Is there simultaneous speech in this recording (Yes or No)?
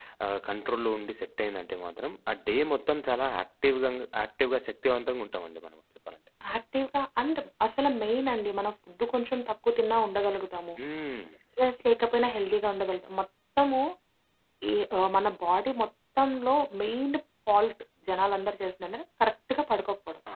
No